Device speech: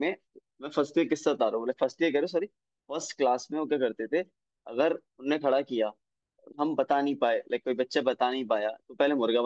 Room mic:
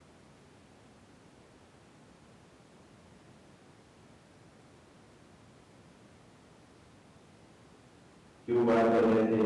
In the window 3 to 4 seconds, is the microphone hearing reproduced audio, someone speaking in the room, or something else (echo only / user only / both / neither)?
neither